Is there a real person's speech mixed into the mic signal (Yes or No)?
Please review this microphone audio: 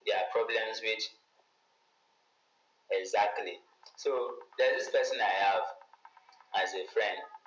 No